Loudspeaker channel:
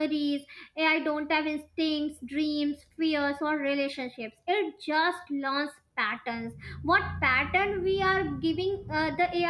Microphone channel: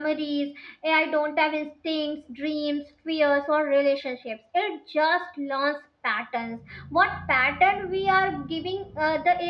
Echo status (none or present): present